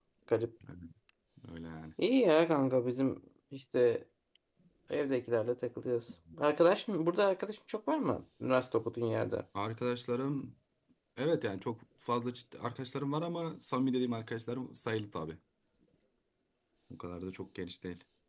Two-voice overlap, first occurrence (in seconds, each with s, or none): none